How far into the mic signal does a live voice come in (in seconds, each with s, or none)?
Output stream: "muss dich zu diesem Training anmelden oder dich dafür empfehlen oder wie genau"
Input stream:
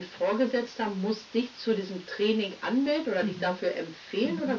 3.2 s